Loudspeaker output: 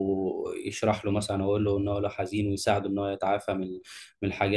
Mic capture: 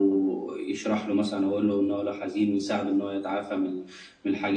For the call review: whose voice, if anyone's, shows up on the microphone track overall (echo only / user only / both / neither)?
echo only